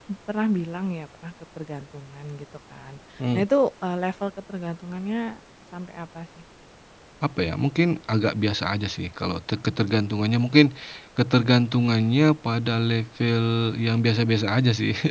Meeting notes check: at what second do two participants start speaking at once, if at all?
none

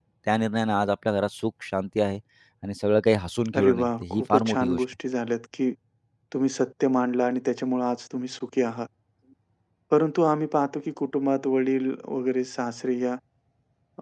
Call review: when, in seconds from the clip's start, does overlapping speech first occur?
4 s

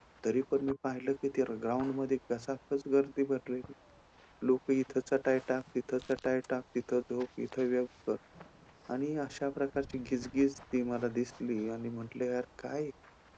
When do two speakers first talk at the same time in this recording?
none

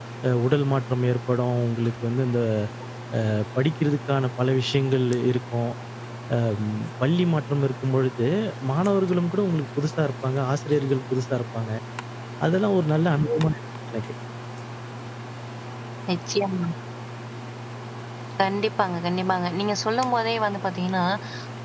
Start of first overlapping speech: none

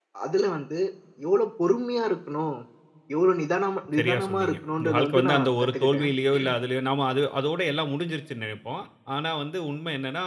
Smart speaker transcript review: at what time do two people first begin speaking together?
4 s

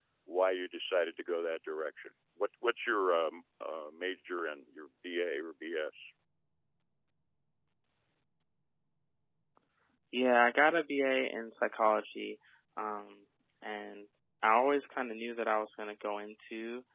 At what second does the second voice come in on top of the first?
none

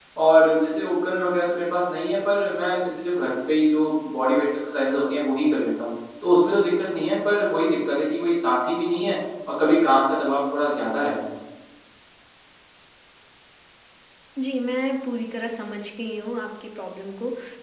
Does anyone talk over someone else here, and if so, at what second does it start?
none

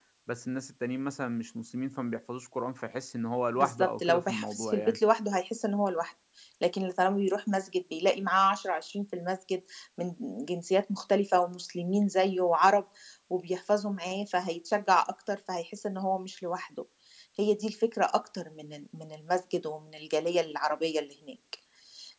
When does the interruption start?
4 s

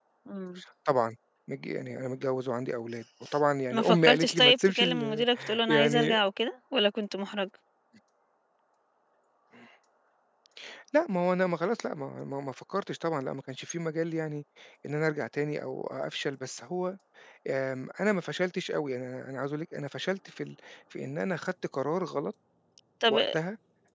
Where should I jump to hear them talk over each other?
4 s

